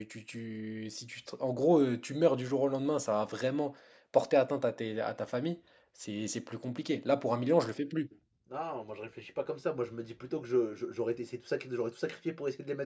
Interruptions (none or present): none